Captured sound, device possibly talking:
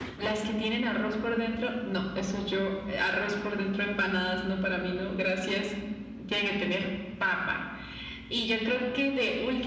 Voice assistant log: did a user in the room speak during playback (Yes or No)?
No